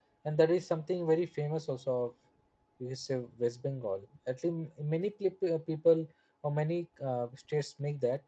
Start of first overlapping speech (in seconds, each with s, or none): none